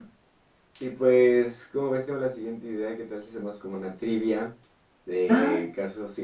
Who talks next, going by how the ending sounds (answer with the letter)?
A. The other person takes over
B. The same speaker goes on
B